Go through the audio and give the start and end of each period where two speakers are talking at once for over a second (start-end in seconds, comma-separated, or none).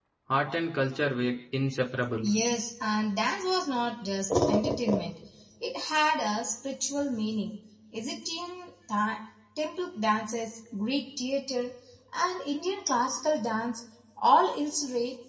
none